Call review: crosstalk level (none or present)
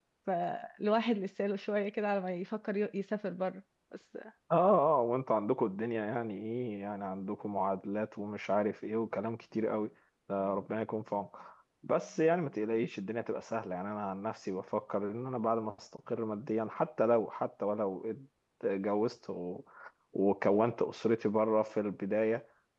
none